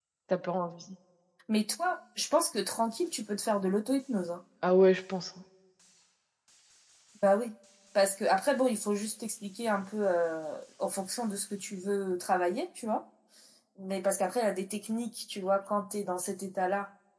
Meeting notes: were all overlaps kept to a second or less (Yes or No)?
Yes